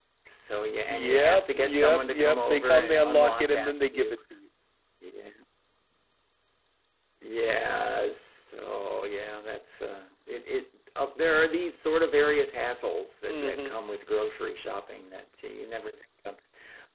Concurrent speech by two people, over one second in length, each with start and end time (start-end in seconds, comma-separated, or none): 0.9-4.2